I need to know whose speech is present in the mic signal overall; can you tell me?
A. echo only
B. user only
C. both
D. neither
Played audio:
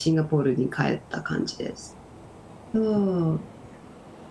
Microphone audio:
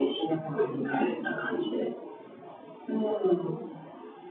A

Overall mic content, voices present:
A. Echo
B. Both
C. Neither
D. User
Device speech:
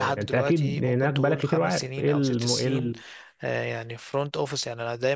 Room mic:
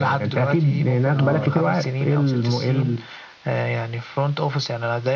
B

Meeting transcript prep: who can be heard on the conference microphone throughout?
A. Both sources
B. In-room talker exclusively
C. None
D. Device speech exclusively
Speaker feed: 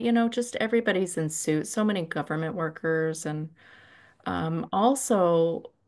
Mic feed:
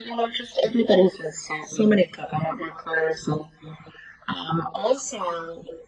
D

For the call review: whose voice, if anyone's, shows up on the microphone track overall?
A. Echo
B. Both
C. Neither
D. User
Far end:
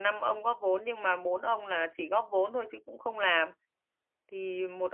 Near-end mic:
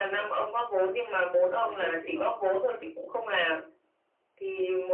B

